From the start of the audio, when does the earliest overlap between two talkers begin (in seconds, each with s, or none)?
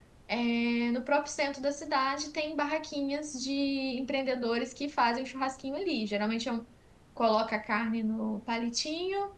none